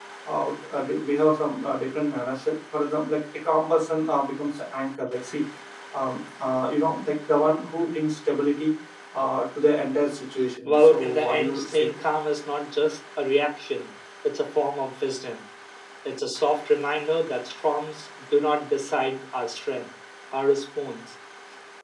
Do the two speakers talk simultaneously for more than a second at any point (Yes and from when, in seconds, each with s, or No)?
Yes, from 10.7 s